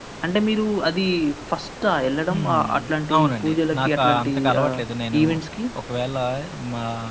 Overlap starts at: 2 s

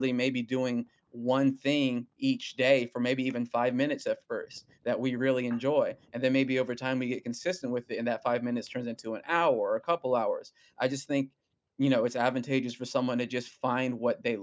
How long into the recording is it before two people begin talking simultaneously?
none

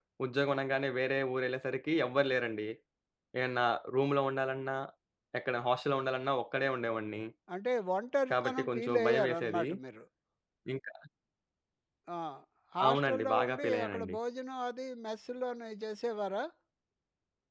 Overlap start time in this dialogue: 8 s

